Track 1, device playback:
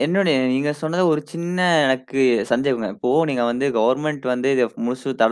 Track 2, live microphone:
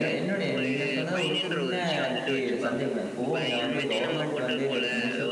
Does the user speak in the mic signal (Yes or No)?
Yes